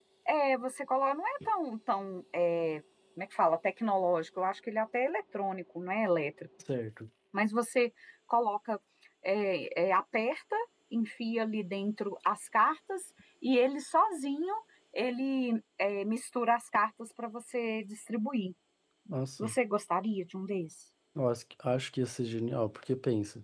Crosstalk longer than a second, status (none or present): none